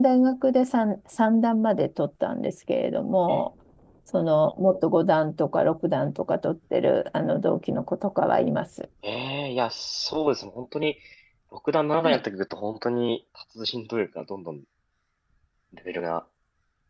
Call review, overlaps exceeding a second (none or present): none